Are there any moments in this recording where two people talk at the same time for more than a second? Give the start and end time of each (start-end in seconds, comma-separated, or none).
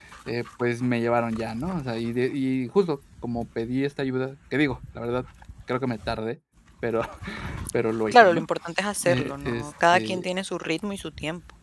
9.0-10.2